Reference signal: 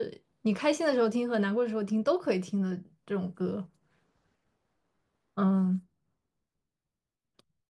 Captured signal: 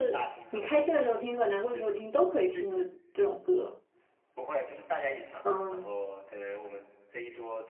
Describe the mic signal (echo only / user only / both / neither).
both